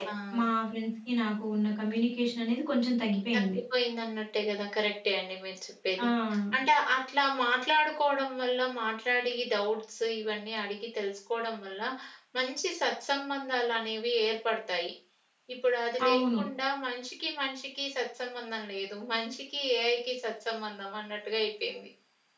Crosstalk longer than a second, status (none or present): none